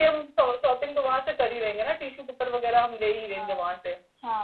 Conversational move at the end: taking over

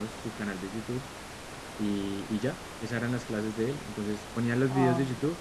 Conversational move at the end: listening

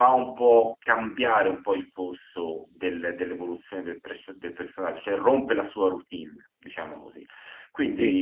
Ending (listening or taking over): listening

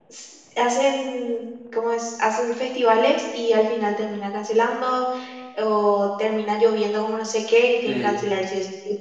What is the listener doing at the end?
listening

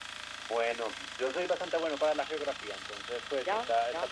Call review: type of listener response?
listening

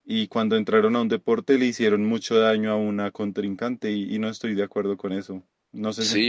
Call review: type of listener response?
taking over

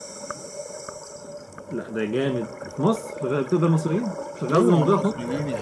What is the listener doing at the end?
taking over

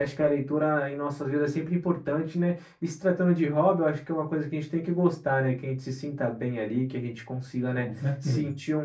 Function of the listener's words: listening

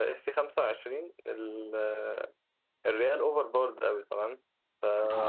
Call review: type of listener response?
listening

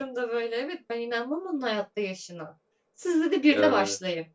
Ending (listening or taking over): listening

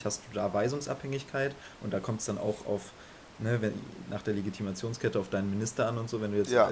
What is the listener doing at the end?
listening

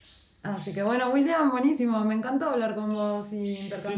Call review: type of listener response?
taking over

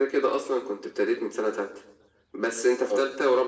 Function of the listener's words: listening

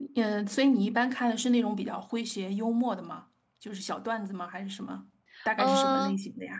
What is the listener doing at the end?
taking over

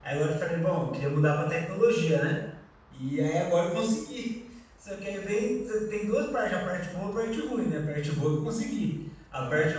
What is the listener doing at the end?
listening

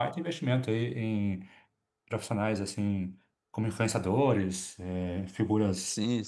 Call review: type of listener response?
taking over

